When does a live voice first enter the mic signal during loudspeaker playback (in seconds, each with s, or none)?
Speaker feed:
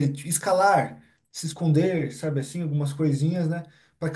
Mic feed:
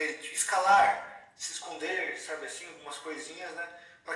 none